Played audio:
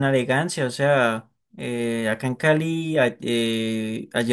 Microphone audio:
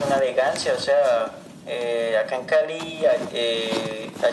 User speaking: No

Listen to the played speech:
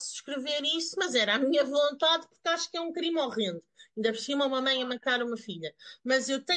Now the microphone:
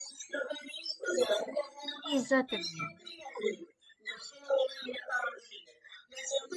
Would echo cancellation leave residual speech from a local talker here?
Yes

